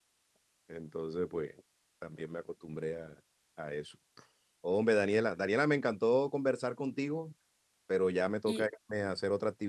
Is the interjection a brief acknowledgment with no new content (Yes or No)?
Yes